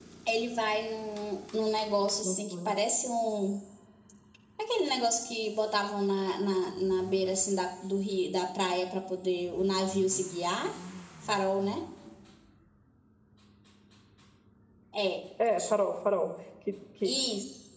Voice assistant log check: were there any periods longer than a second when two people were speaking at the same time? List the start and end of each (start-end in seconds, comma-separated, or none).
none